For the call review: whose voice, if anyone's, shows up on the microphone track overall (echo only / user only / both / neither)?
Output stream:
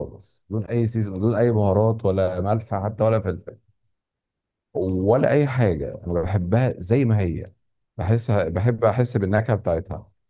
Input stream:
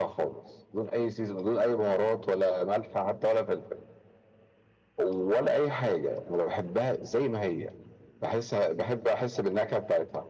echo only